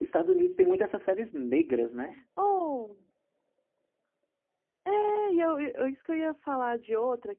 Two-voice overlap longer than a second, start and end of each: none

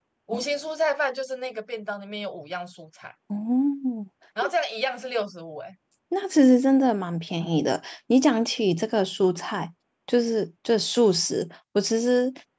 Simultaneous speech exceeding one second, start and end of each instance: none

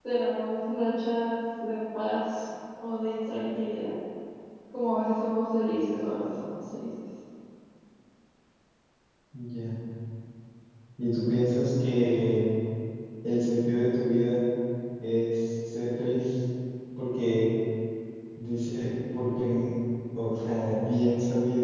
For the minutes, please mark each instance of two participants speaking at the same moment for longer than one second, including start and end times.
none

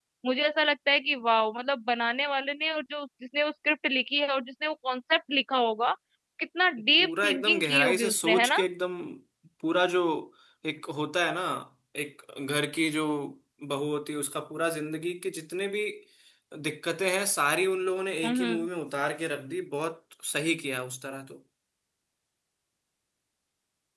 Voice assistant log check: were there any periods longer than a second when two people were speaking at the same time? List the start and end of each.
7.0-8.6

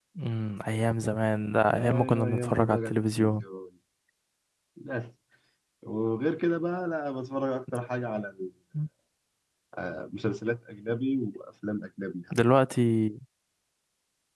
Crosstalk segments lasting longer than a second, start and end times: 1.7-3.4

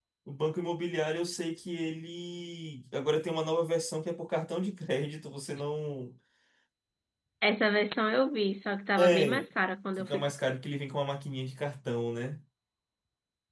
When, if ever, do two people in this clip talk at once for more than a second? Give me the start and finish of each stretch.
none

